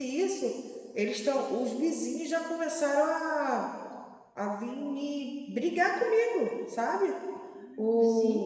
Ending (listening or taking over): listening